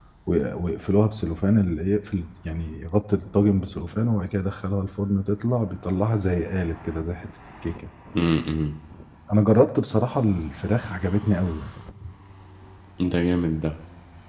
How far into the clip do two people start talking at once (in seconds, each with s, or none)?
none